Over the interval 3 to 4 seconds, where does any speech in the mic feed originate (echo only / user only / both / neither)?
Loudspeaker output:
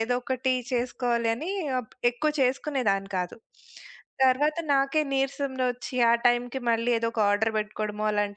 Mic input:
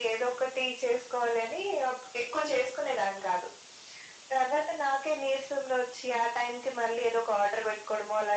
echo only